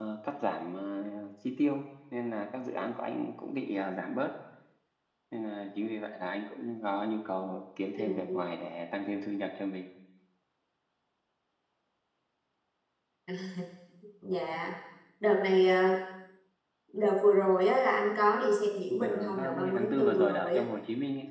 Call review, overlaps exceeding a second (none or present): present